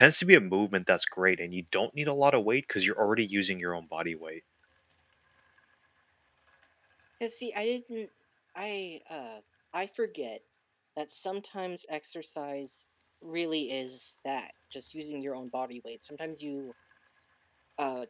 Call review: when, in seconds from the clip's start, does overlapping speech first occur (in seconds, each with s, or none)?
none